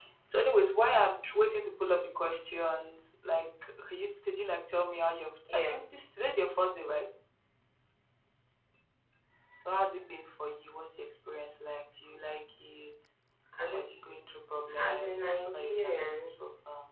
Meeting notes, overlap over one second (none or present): present